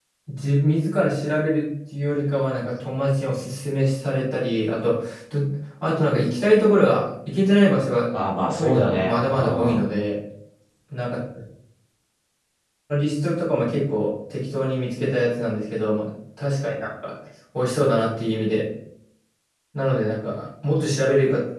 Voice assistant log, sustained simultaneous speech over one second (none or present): present